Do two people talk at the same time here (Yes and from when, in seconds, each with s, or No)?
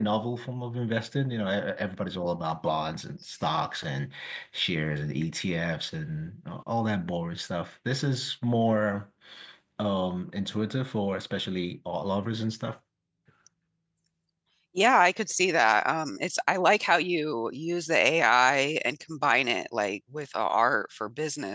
No